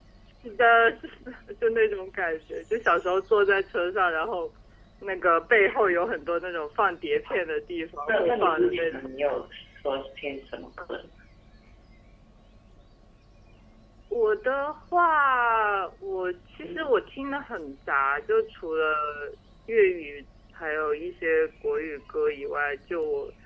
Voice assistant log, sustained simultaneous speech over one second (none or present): present